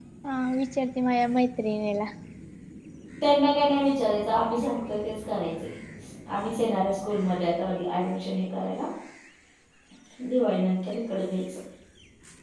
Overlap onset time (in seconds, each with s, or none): none